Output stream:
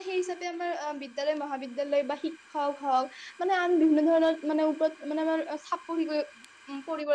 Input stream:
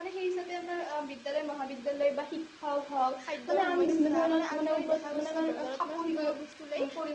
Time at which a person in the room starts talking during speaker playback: 3.2 s

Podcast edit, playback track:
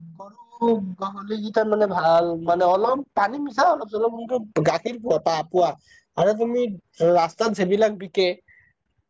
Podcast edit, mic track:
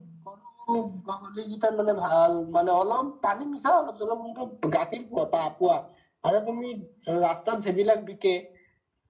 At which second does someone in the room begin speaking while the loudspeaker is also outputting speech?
none

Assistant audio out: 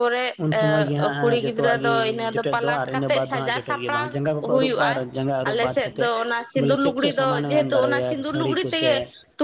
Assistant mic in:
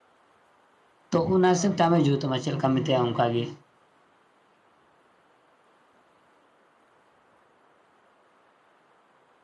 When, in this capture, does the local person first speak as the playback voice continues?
1.1 s

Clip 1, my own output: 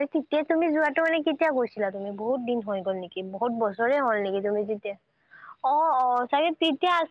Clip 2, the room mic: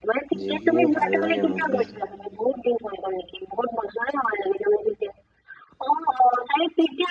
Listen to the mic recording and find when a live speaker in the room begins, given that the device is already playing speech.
0.4 s

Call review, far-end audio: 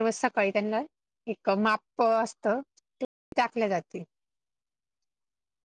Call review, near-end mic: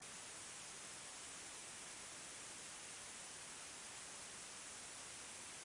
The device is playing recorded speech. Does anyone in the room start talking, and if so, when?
none

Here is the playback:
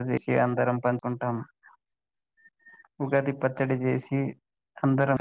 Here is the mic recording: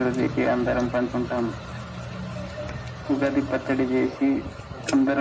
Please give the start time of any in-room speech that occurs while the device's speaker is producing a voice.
none

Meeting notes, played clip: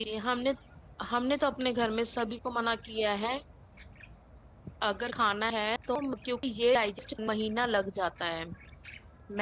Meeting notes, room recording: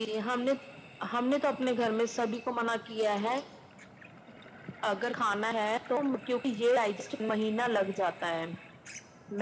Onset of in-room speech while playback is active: none

